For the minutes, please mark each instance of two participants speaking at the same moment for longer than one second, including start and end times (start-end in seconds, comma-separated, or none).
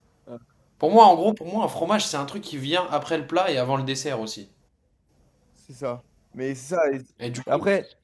none